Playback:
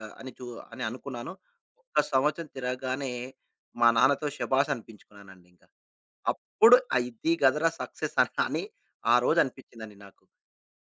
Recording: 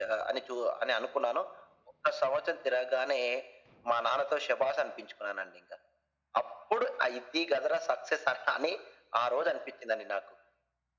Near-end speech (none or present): none